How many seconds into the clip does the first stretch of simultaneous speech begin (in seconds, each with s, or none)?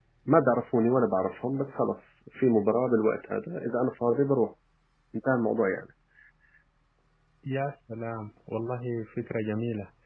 none